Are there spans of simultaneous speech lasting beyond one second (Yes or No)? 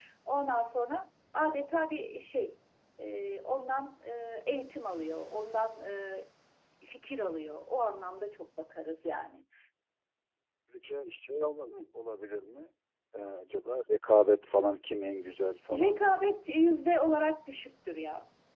No